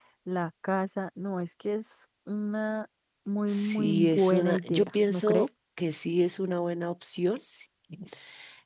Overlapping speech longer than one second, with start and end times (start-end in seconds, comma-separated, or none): 3.5-5.5